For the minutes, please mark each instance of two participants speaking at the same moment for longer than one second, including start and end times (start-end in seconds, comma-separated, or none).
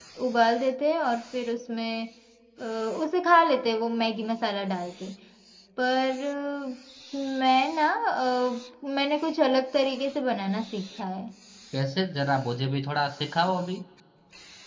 none